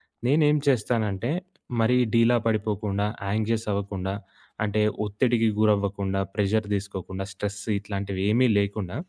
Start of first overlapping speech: none

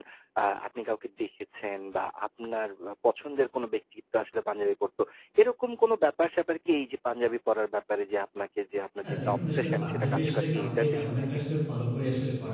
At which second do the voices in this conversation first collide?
9.0 s

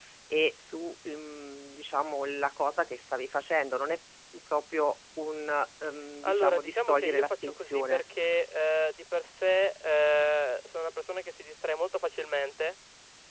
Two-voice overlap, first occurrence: 6.2 s

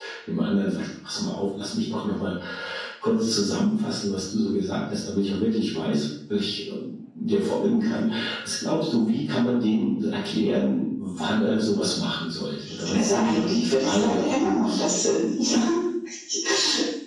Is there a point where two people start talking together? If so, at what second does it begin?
12.8 s

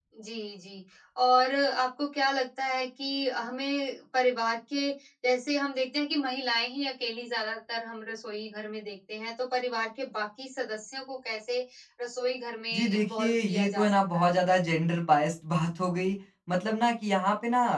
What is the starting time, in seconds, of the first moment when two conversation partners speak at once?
12.7 s

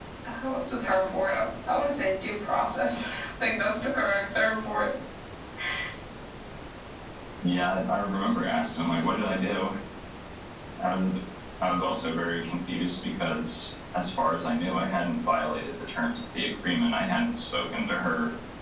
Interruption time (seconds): none

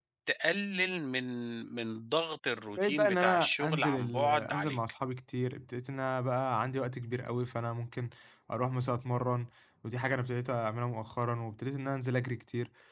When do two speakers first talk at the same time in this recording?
2.8 s

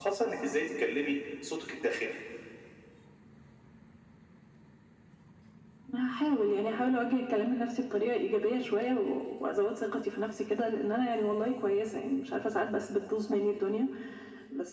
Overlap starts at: none

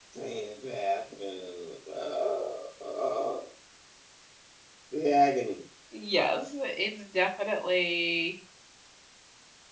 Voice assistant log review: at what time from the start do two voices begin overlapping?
none

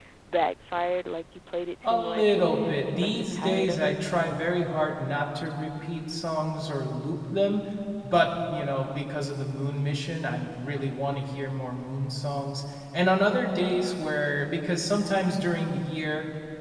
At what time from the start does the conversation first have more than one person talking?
1.8 s

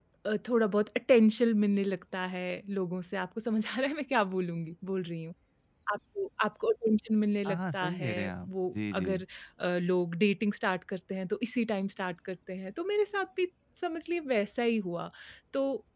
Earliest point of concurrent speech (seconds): 7.4 s

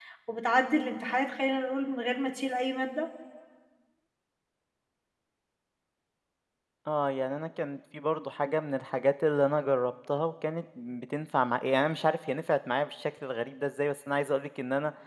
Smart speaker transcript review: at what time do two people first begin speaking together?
none

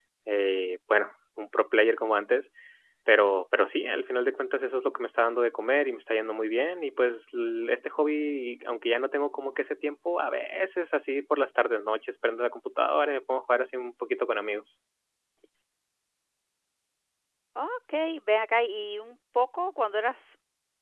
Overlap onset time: none

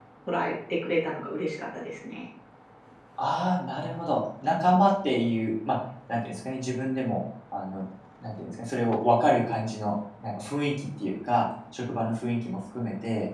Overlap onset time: none

